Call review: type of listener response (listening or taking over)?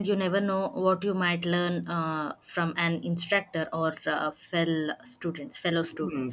taking over